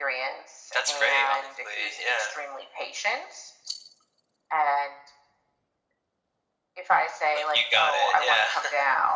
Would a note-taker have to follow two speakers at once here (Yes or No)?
Yes